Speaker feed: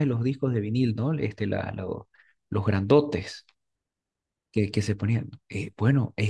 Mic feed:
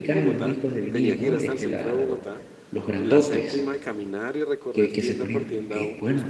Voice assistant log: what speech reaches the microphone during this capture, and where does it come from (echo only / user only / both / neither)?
both